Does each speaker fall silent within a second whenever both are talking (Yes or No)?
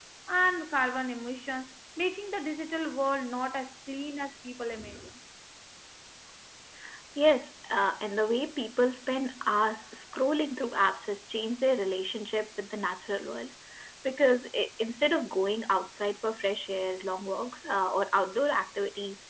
Yes